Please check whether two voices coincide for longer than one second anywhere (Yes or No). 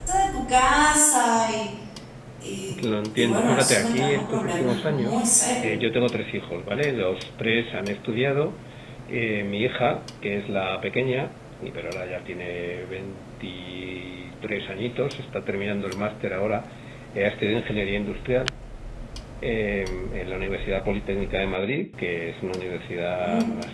Yes